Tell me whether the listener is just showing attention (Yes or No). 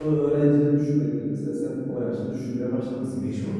No